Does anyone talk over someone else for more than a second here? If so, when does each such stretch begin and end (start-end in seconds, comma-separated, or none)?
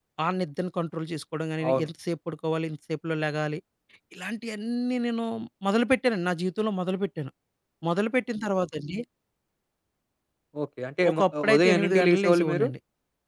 11.1-12.7